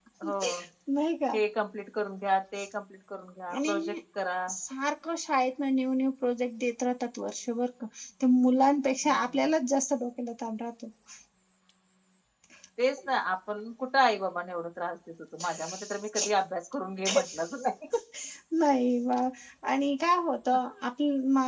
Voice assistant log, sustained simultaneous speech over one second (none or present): none